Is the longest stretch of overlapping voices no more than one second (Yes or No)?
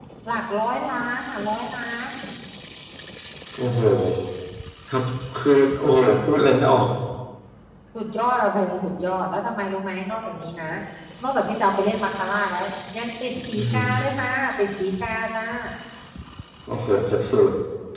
Yes